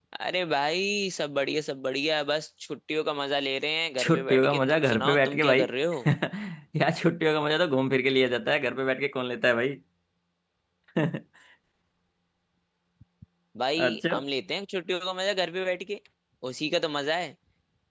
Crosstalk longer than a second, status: present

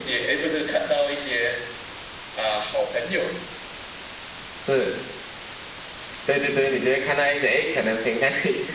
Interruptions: none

